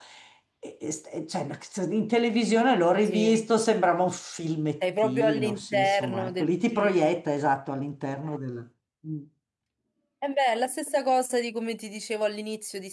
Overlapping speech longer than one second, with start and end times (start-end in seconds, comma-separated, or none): 5.0-7.2